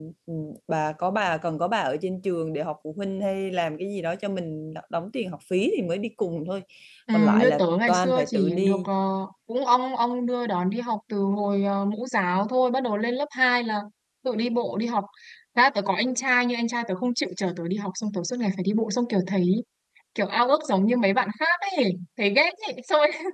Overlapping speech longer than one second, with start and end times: 7.1-8.9

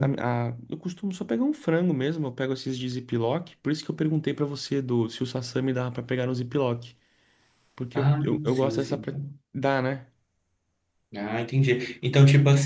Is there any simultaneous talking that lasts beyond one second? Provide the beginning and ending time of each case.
8.0-9.2

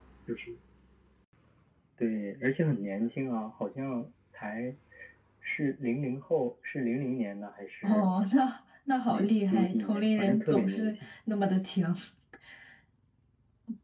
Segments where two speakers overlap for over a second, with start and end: 9.1-10.9

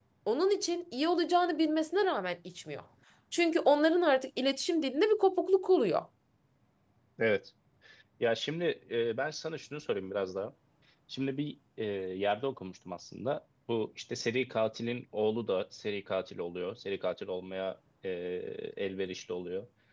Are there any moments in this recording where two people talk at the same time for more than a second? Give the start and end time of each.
none

